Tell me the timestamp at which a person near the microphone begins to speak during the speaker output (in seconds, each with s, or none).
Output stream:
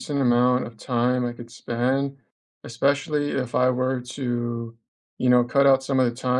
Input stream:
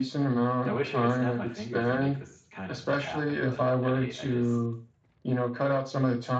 0.7 s